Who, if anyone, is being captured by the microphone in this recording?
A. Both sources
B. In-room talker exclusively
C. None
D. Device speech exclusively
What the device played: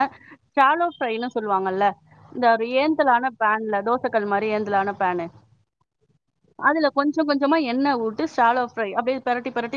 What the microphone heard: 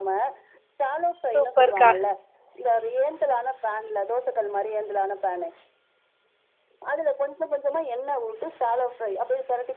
A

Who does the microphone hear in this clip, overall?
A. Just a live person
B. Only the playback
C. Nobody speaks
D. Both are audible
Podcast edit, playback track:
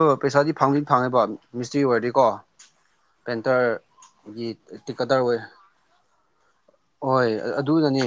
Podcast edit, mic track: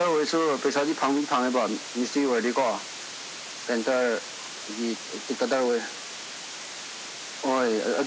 B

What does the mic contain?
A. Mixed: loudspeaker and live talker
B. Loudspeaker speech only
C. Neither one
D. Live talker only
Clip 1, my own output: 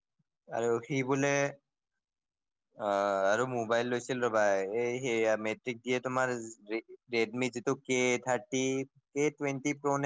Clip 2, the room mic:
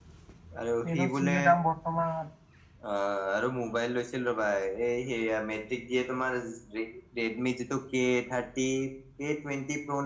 A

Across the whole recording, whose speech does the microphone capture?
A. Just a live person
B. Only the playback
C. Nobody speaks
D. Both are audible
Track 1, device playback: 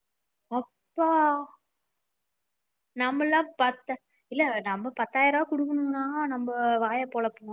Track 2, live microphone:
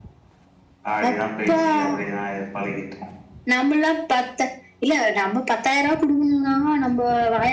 D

